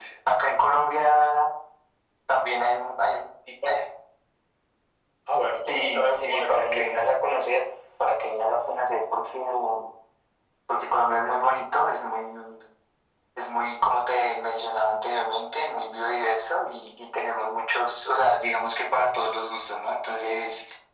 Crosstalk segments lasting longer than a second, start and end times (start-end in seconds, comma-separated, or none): 5.7-7.2